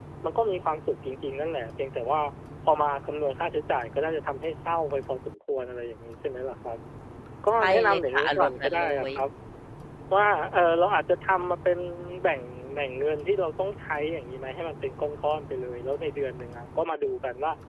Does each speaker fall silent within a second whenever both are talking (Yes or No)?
No